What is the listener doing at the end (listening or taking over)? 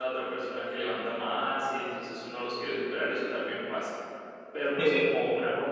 listening